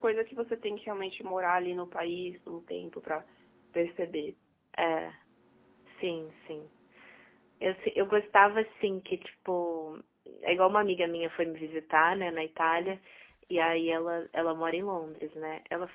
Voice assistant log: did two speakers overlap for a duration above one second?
No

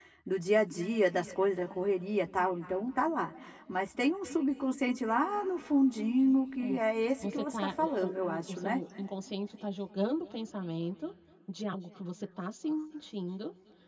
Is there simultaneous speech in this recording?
Yes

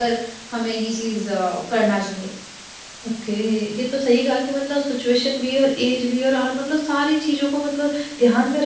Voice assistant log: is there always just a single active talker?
Yes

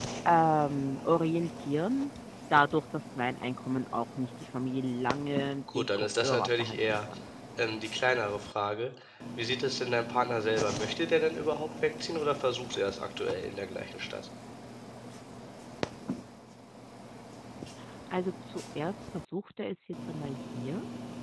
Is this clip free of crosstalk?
No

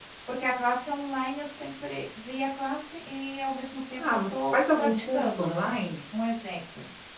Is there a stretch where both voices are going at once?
Yes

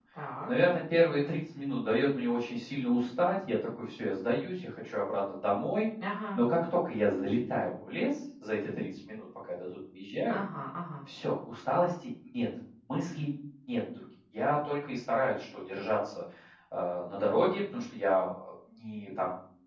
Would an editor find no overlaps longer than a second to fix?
Yes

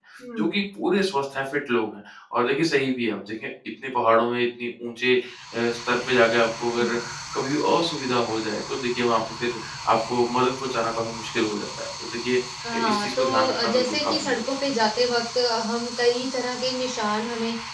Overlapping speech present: Yes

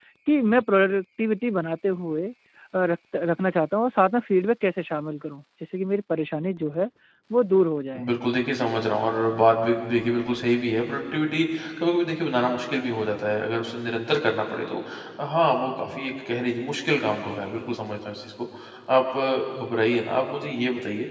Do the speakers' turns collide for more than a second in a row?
No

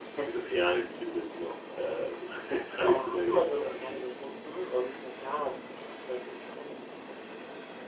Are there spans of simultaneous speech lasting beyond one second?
Yes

